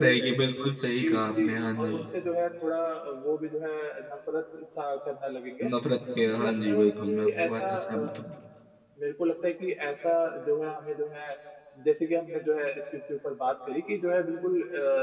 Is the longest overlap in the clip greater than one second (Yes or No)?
Yes